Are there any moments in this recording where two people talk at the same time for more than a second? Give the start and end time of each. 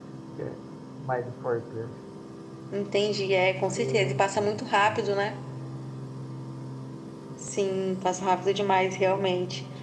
3.8-5.0

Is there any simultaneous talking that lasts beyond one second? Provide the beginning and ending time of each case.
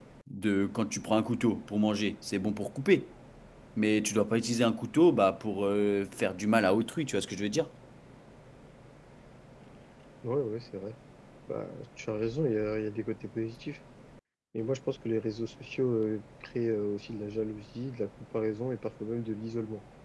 none

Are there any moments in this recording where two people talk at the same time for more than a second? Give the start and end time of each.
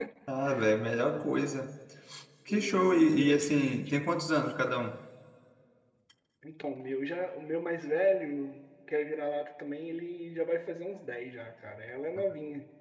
2.5-3.8

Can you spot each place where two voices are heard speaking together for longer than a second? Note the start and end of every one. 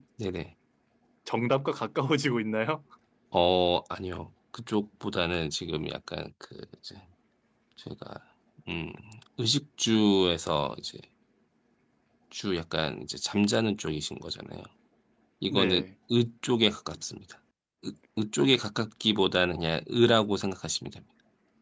none

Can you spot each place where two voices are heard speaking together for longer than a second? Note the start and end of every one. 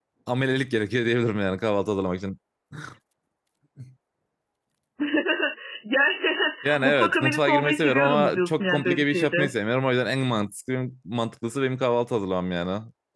6.8-9.5

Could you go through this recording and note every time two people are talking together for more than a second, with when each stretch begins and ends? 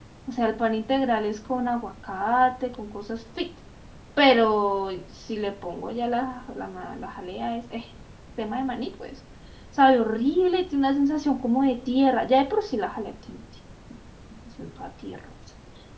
none

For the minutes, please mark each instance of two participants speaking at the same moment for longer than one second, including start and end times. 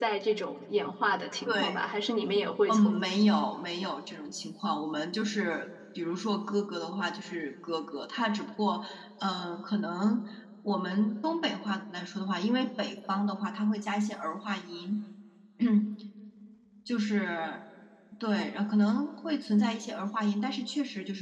none

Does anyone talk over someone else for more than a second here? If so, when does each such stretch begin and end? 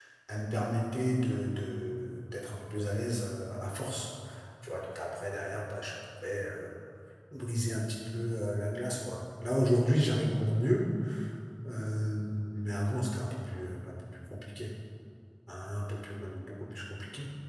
none

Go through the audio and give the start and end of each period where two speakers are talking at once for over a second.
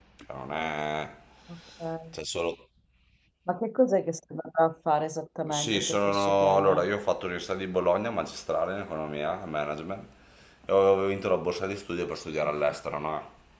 5.5-6.8

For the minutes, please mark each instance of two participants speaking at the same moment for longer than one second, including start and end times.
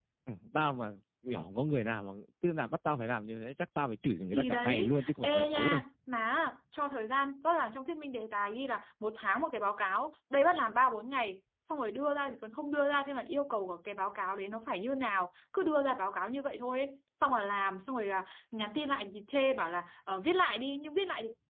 4.3-5.8

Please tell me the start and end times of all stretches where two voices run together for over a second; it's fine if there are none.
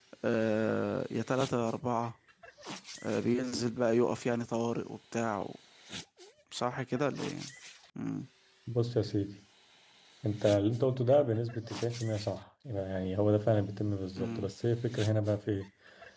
none

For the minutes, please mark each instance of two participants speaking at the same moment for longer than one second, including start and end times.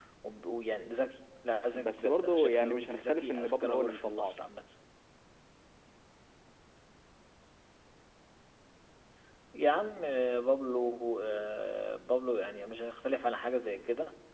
1.7-4.3

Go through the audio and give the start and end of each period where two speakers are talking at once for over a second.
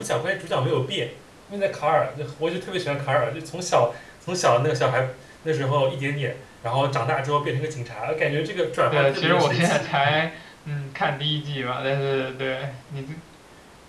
8.9-10.2

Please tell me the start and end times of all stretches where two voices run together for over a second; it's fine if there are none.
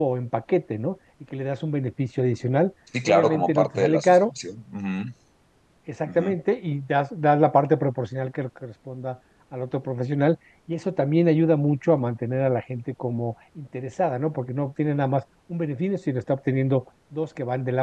3.0-4.3

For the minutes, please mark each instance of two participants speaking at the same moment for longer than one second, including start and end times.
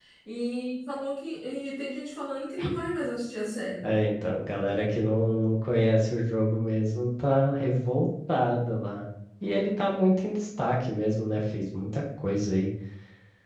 none

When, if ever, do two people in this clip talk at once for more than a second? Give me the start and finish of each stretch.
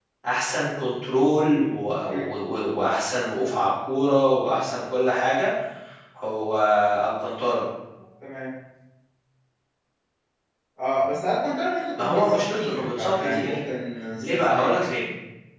12.0-13.6

